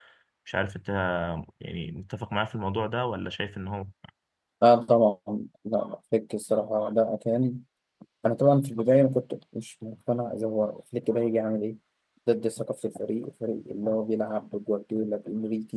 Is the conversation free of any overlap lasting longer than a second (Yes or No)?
Yes